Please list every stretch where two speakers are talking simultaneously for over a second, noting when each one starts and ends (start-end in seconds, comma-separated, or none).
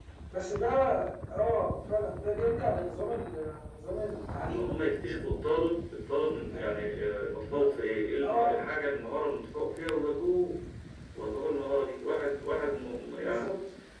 none